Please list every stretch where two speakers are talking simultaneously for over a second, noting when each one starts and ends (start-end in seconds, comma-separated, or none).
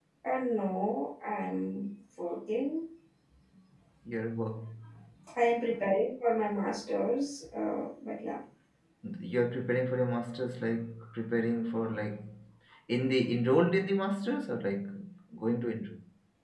none